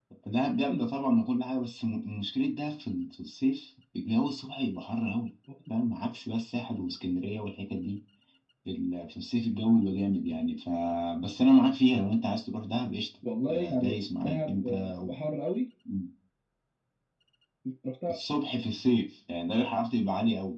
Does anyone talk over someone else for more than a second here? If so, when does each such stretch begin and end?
13.5-15.1

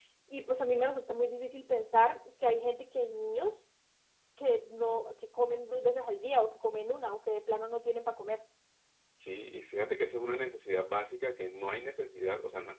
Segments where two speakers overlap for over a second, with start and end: none

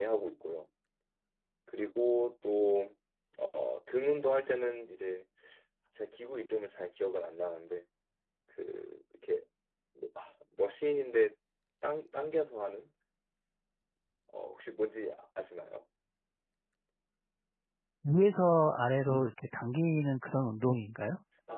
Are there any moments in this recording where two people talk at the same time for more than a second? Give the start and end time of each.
none

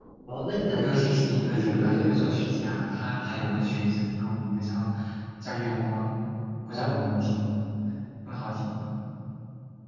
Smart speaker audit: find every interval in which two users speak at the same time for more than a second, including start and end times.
0.7-2.8

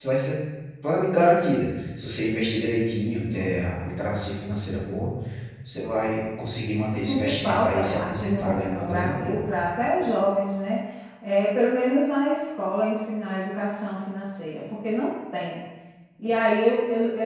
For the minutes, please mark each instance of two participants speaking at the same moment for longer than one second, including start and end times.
6.9-9.4

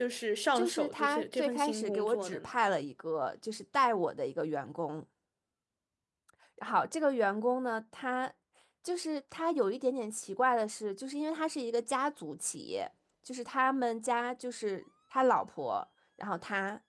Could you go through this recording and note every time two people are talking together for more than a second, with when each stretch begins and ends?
0.6-2.5

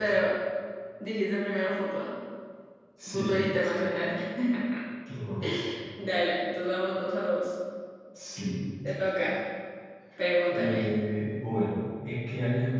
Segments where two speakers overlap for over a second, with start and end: none

